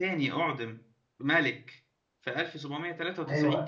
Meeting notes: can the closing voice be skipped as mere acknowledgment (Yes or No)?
No